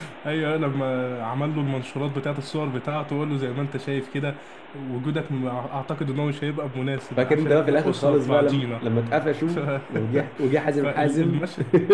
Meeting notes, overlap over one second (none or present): present